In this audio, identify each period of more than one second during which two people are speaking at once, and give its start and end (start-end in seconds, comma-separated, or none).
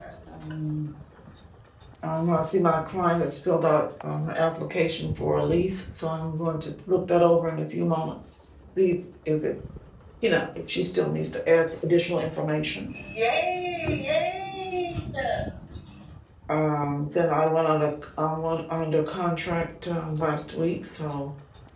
none